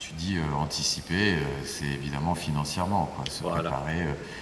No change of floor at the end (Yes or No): Yes